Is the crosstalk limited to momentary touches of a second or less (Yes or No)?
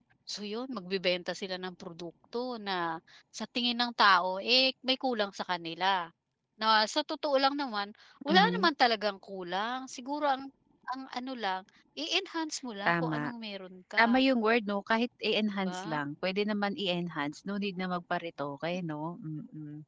Yes